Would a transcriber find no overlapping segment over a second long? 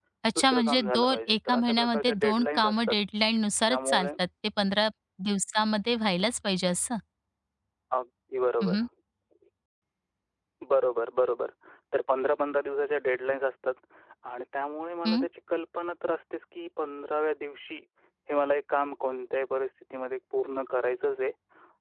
No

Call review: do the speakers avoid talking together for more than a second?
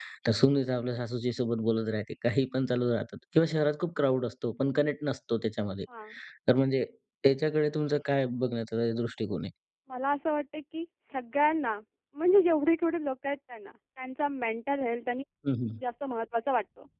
Yes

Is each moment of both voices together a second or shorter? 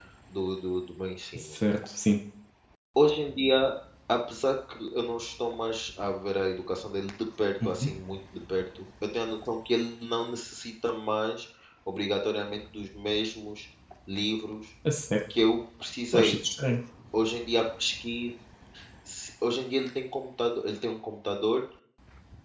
Yes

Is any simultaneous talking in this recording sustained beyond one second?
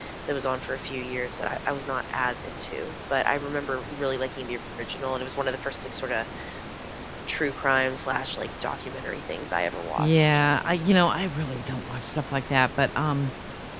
No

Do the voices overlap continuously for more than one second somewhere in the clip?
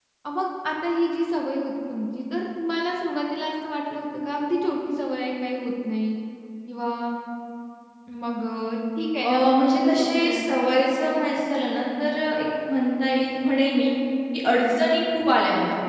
Yes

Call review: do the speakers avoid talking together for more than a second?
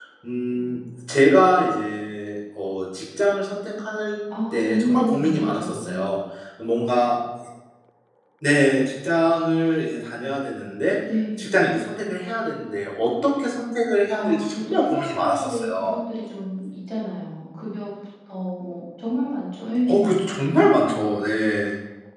No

